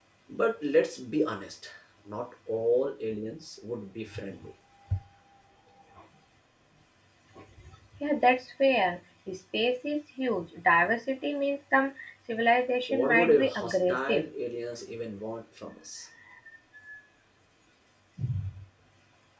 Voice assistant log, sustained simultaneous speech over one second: present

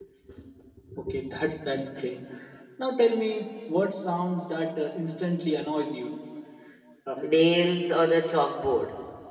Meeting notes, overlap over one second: none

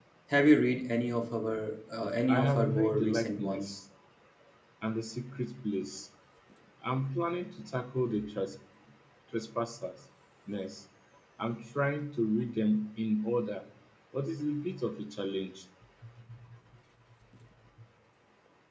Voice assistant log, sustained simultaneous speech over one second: present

